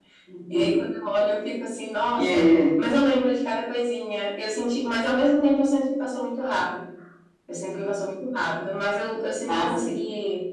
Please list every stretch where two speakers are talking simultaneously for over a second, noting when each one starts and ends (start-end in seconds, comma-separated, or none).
none